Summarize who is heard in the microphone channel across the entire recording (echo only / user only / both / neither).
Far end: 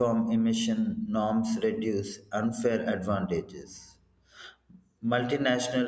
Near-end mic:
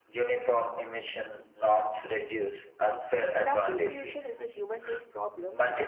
both